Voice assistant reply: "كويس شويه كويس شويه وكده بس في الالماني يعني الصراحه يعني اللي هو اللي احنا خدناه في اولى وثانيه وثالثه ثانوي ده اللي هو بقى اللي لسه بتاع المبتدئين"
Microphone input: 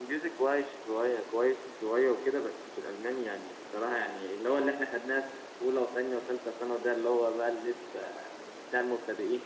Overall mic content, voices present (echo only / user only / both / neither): echo only